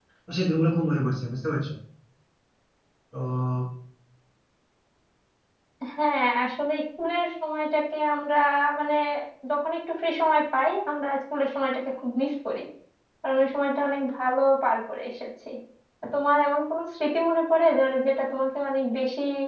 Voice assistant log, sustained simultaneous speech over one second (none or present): none